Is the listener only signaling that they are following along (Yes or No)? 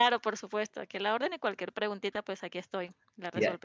No